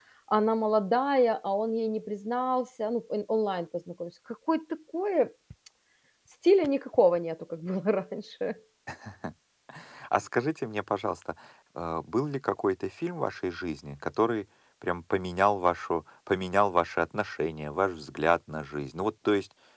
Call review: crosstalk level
none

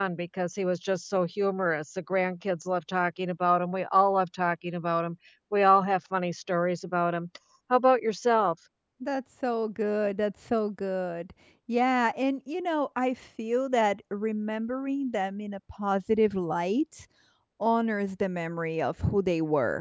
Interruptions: none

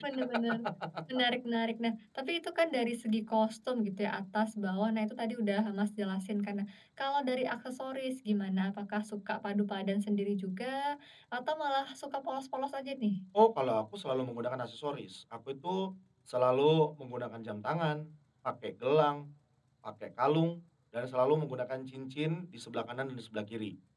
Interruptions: none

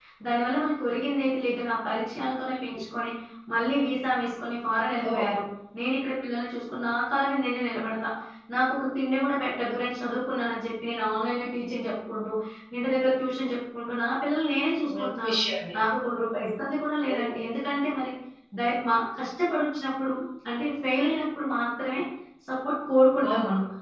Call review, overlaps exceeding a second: none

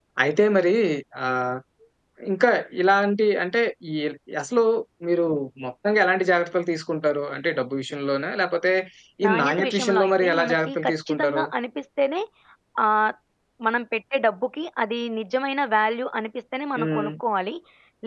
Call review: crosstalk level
present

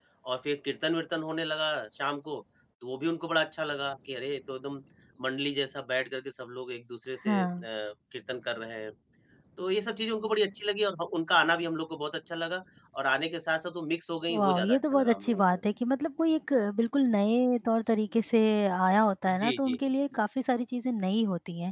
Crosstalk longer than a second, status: present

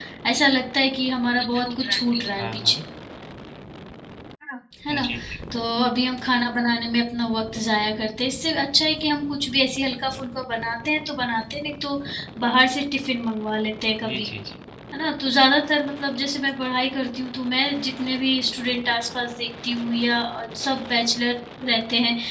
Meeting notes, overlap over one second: present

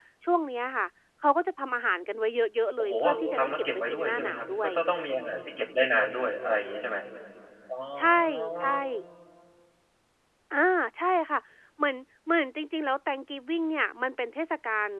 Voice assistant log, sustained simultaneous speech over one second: present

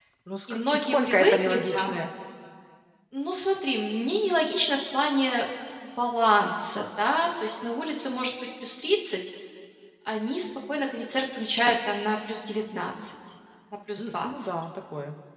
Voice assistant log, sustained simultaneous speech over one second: present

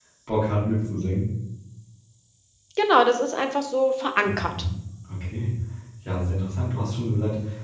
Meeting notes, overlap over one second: none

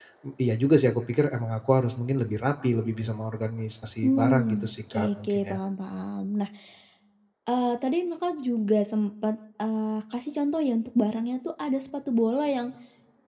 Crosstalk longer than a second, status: present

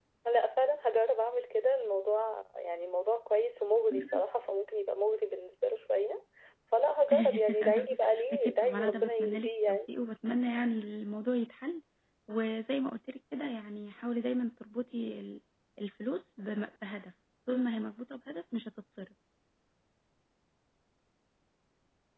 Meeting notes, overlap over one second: present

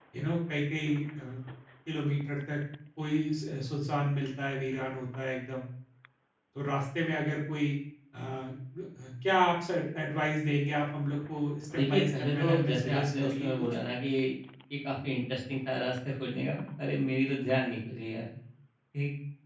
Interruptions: present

